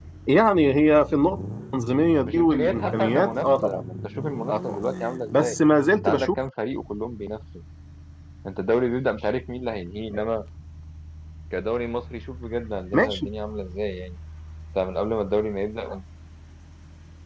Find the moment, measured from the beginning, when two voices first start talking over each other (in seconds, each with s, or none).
2.2 s